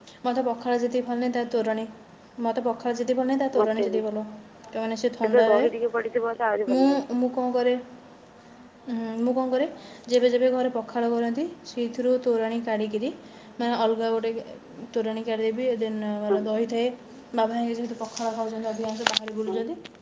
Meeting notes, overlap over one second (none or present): none